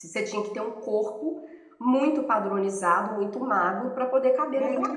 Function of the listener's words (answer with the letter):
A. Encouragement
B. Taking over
B